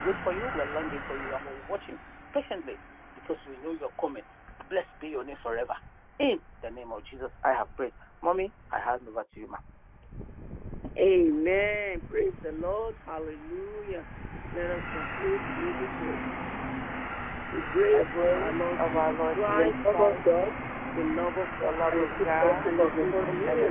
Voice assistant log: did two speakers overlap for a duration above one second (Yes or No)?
Yes